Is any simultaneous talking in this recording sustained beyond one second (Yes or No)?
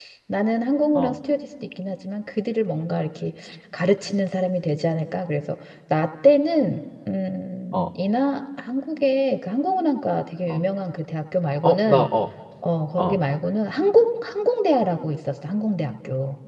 No